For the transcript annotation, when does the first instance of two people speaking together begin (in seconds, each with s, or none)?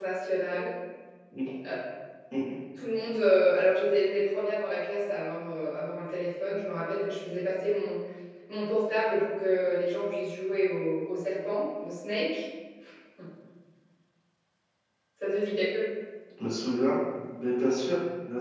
none